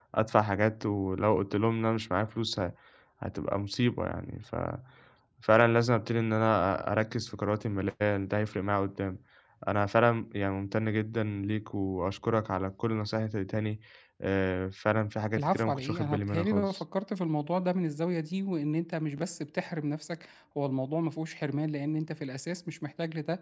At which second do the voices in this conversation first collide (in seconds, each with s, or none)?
15.4 s